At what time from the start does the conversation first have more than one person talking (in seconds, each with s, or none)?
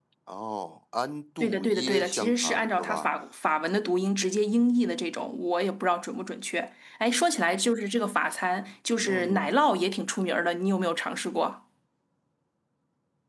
1.4 s